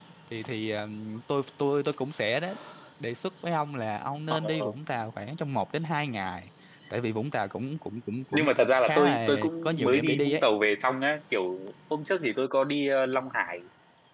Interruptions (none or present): present